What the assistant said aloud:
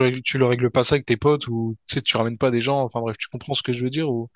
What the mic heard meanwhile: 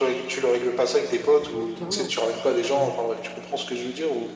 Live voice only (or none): Ah, Mais clairement, Mhm.